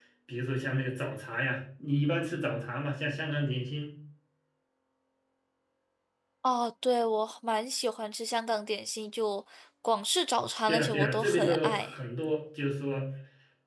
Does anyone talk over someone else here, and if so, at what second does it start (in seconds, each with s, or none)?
10.7 s